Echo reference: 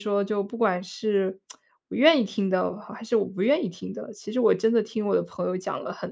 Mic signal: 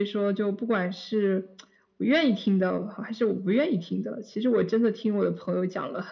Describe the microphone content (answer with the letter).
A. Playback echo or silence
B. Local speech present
A